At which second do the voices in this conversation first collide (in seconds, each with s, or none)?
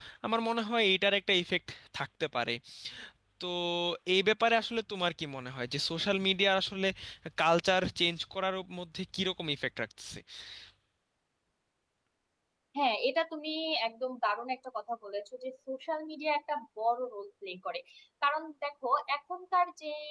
none